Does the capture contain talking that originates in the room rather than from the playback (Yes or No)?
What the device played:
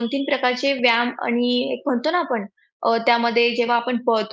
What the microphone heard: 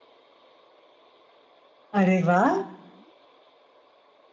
Yes